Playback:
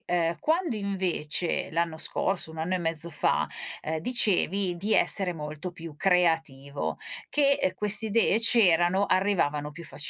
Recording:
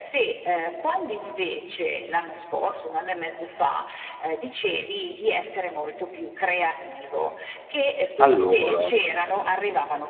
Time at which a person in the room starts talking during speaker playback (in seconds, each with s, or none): 8.2 s